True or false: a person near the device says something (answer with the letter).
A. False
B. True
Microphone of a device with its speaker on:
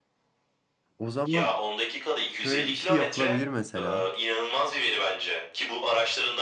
B